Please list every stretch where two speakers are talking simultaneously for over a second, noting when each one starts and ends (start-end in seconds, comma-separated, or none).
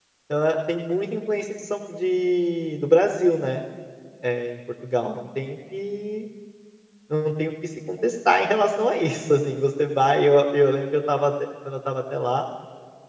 none